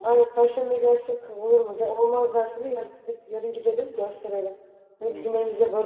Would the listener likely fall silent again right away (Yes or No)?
Yes